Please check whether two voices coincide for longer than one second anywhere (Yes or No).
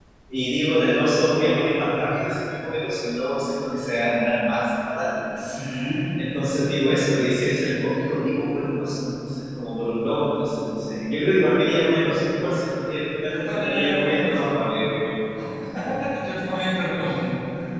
Yes